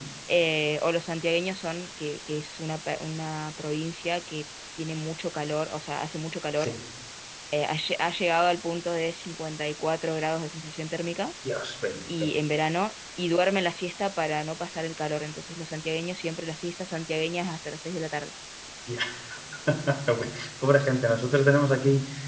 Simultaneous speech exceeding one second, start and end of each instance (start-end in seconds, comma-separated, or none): none